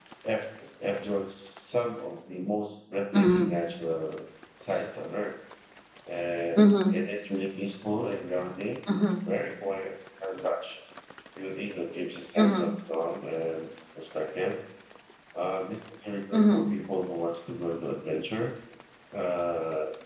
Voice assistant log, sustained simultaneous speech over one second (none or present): none